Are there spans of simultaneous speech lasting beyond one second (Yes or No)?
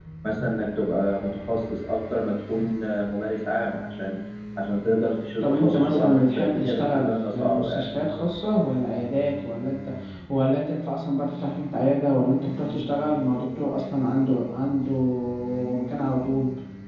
Yes